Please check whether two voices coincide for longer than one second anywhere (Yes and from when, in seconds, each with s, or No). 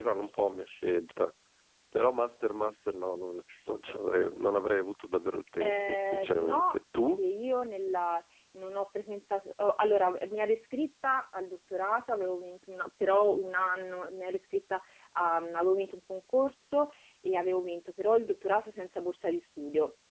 Yes, from 5.6 s